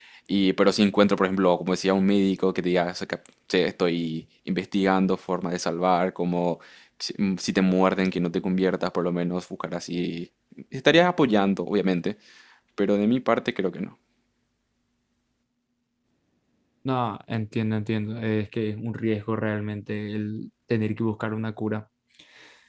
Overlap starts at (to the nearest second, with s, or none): none